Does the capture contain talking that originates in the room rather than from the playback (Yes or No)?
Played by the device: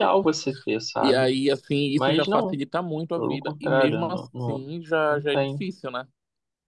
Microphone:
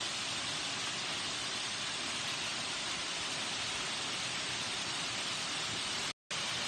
No